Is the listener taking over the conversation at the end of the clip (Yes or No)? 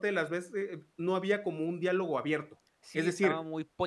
Yes